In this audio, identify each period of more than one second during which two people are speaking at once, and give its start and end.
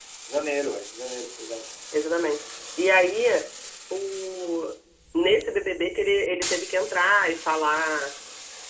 none

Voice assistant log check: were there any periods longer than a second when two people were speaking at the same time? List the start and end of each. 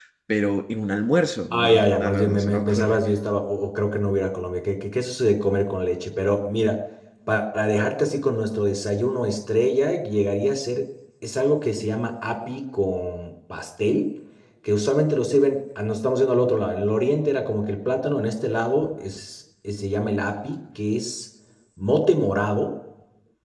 1.5-3.0

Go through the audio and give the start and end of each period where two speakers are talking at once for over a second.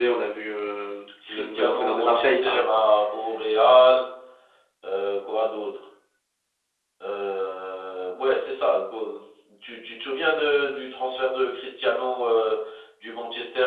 1.3-2.7

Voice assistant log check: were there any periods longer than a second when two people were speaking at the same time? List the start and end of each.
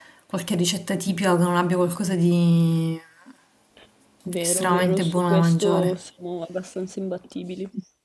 4.4-6.0

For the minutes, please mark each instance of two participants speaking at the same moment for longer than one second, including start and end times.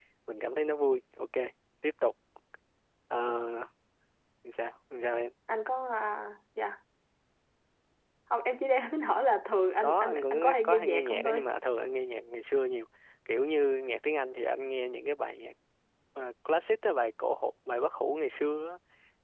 9.8-11.4

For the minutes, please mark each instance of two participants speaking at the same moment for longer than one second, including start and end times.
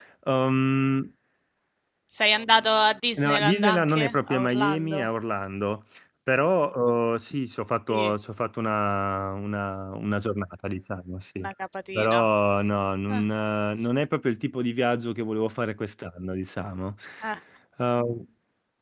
3.2-5.1

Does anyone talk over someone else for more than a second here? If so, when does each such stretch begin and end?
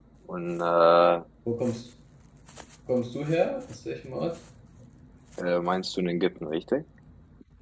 none

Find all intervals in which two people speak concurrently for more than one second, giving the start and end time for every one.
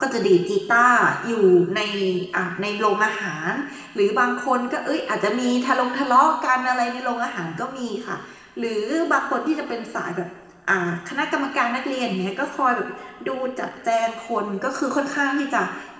none

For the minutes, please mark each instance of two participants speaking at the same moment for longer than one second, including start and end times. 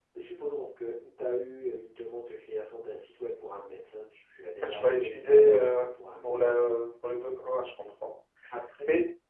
4.6-5.8

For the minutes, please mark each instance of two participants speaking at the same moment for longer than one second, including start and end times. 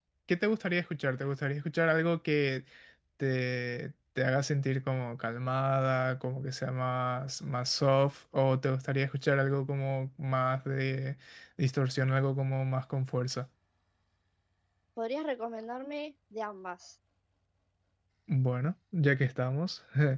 none

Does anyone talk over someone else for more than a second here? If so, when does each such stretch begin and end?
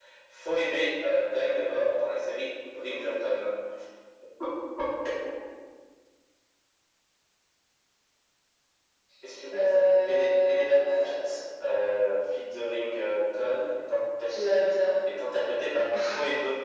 9.6-11.1

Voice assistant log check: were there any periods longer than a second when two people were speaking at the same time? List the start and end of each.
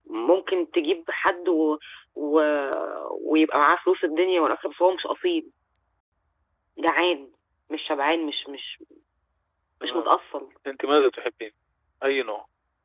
none

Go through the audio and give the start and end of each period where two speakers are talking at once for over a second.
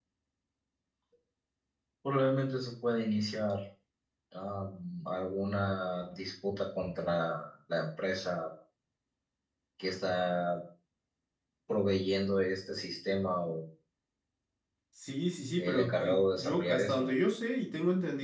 15.6-17.1

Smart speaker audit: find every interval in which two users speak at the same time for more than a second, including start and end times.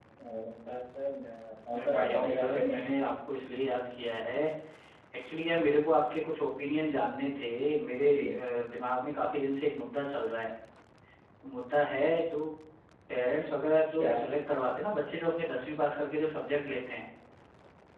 1.7-3.0

